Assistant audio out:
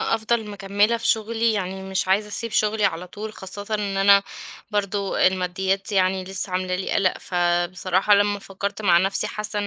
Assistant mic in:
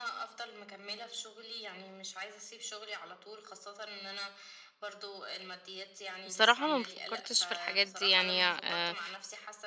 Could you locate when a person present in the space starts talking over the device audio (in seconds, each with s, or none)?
6.2 s